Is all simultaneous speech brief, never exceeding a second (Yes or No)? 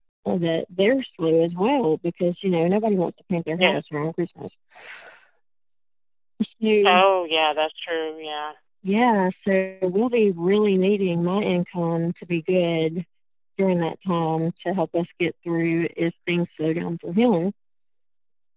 Yes